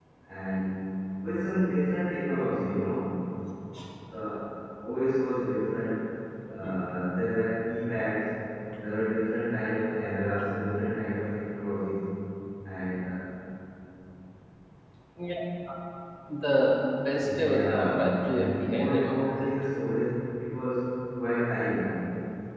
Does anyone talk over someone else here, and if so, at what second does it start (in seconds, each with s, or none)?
17.2 s